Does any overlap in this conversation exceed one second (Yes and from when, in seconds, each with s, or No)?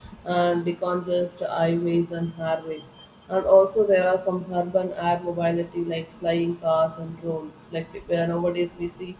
No